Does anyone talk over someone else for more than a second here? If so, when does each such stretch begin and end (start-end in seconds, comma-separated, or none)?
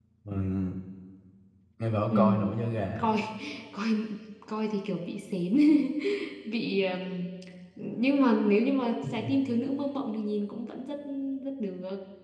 none